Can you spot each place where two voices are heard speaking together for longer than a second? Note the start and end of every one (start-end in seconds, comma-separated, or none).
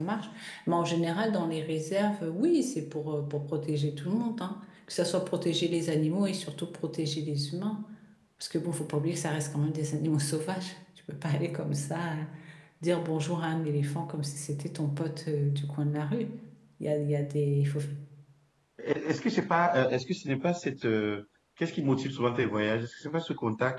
none